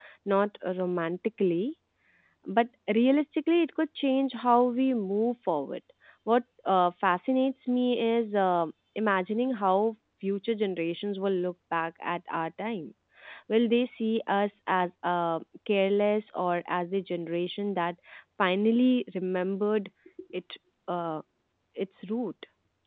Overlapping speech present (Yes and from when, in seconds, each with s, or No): No